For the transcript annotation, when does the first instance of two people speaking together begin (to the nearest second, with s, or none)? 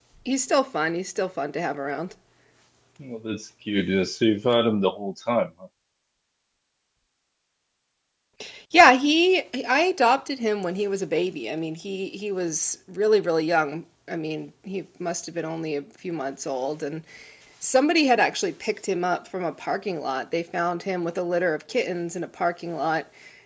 none